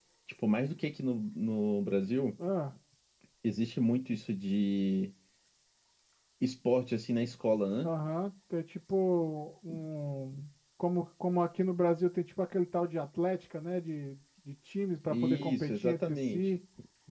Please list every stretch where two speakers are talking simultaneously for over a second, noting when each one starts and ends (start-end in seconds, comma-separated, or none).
15.1-16.5